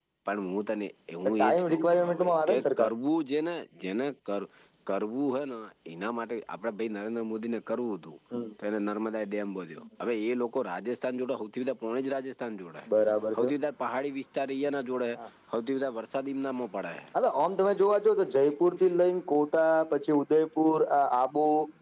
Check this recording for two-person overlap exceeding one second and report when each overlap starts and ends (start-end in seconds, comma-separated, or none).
1.4-2.9